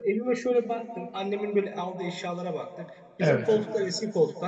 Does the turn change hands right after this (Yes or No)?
No